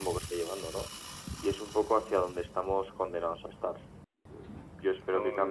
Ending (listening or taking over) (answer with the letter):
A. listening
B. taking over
A